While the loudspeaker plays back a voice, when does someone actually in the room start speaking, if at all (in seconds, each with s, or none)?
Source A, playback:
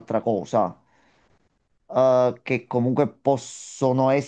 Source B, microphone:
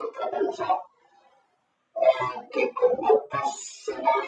none